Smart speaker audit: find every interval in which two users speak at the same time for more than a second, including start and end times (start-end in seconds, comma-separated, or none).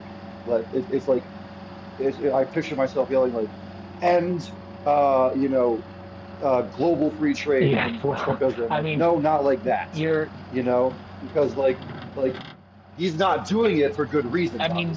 7.6-9.1